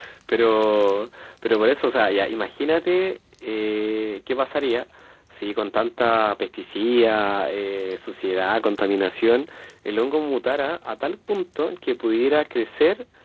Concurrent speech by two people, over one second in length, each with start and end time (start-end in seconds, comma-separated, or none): none